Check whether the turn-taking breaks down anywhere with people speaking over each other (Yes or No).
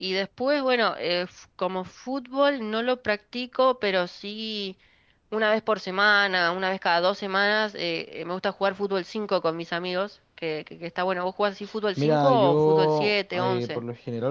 Yes